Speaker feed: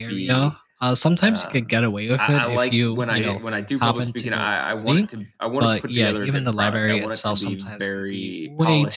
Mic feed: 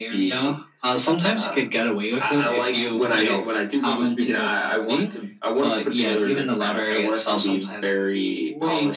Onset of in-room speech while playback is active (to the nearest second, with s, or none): none